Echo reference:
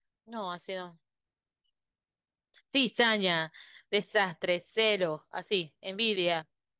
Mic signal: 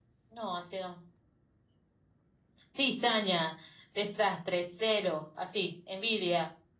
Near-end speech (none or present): none